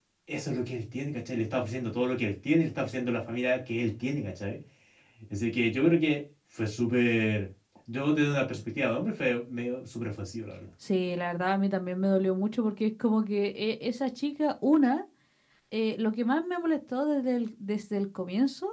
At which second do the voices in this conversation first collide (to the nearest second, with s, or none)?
none